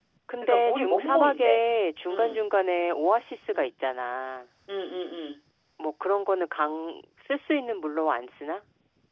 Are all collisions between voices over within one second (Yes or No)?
No